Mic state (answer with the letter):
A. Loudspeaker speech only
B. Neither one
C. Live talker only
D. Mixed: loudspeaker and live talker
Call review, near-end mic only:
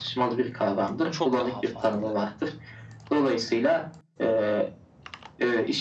D